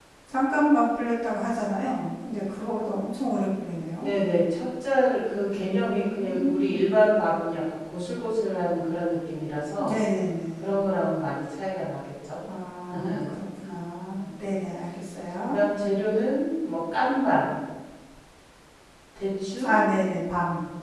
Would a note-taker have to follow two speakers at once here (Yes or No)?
Yes